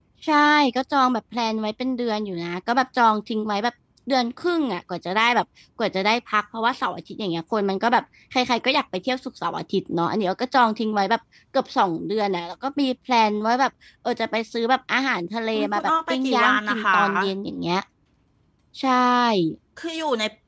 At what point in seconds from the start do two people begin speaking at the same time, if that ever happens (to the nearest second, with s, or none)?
16 s